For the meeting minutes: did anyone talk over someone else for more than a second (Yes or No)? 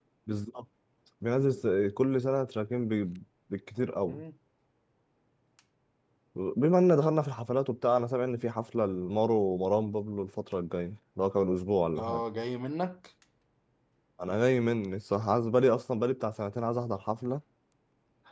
No